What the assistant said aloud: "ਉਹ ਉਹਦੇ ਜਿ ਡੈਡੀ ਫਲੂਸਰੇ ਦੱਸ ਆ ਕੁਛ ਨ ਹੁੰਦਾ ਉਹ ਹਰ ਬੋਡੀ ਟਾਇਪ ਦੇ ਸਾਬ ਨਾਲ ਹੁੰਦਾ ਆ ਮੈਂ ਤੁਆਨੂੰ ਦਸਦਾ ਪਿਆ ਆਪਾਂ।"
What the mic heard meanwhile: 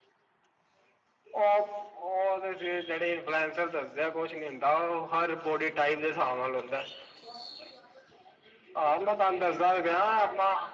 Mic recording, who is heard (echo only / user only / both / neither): echo only